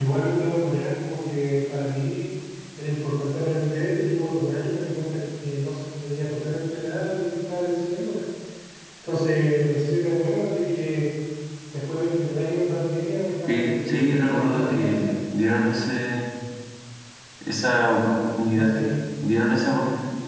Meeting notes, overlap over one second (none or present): present